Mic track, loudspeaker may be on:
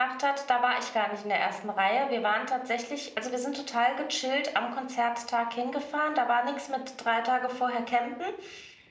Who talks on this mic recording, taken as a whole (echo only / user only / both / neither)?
user only